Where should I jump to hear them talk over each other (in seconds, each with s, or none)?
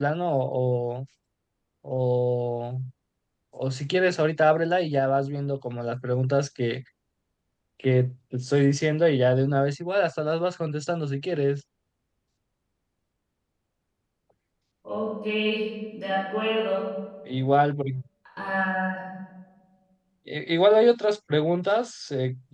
none